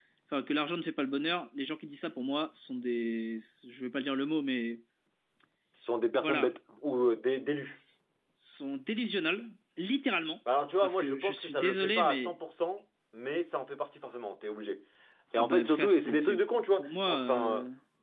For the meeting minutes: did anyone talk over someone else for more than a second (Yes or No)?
Yes